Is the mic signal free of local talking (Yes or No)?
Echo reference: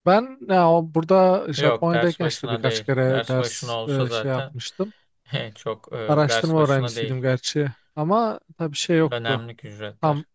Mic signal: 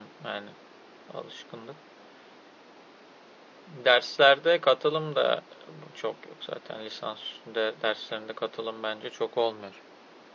No